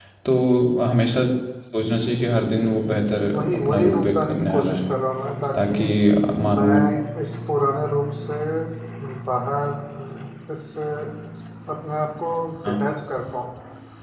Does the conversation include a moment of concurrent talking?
Yes, from 3.3 s

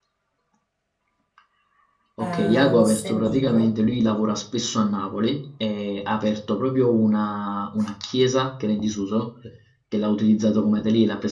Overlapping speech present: Yes, from 2.2 s

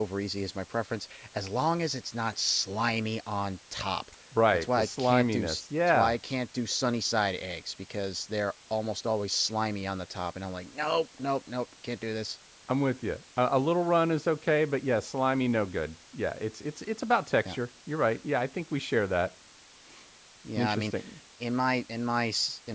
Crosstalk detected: Yes, from 4.5 s

